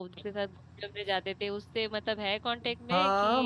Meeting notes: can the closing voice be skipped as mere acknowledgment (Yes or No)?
No